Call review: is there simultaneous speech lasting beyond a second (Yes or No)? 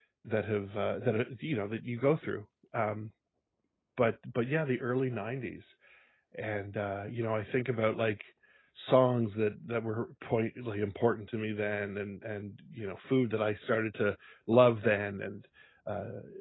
No